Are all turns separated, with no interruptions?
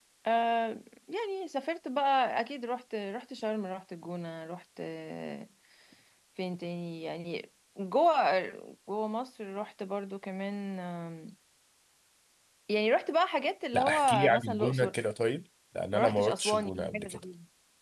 No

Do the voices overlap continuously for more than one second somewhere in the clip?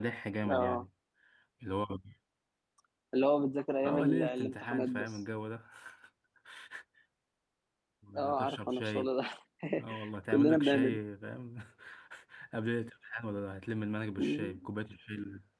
Yes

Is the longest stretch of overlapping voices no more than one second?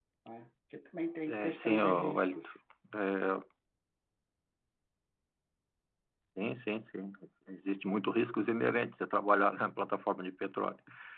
No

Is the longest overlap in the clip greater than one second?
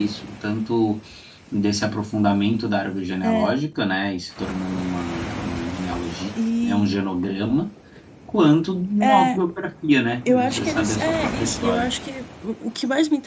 Yes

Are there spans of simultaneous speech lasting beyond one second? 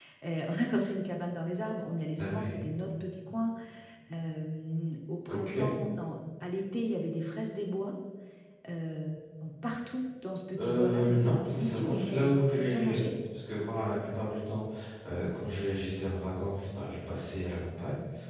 Yes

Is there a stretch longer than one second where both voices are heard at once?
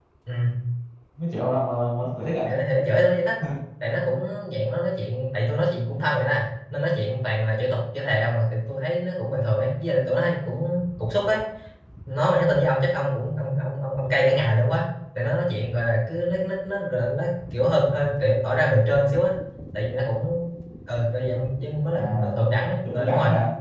No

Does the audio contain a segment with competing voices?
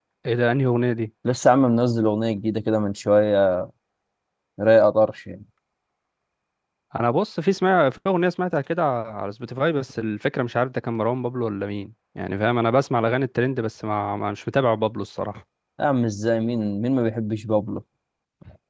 No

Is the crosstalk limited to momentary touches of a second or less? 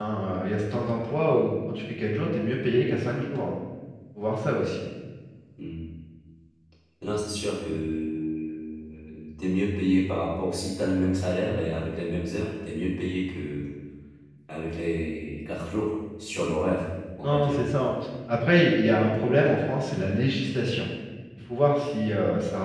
Yes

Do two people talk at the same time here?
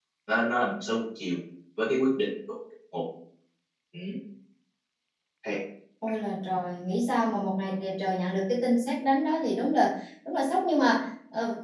No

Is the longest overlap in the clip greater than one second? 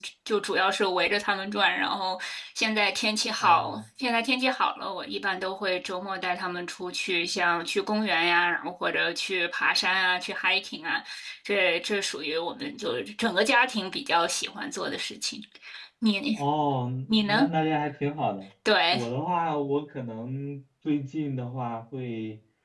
No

